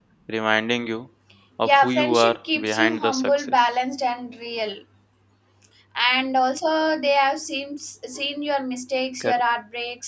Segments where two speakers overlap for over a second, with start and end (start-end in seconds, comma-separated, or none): 1.6-3.6